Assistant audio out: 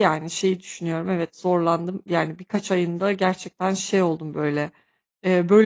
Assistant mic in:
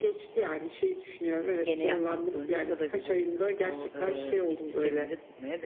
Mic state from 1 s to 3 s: both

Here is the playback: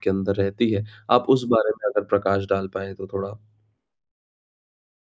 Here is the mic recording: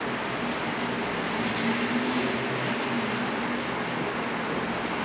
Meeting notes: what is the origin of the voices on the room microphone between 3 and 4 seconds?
neither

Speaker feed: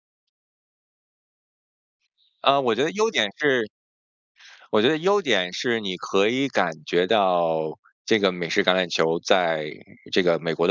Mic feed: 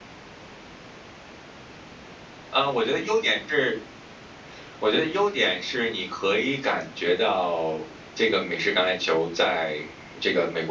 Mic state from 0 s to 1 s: neither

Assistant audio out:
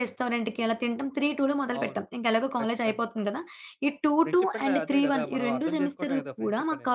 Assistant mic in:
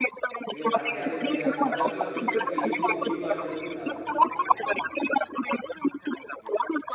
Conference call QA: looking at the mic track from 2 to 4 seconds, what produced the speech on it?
both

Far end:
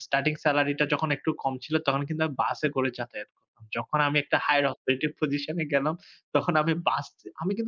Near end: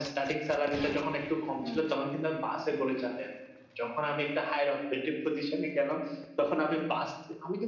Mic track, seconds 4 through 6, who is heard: echo only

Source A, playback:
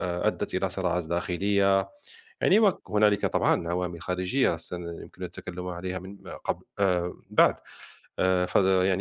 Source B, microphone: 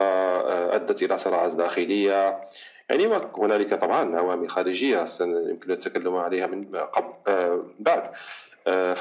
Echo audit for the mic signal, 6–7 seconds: echo only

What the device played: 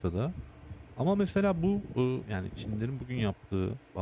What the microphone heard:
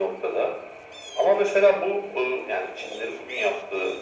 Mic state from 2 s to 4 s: echo only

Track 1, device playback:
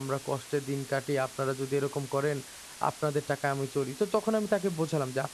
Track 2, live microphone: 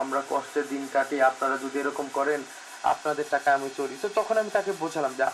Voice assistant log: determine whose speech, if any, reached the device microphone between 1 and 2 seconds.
echo only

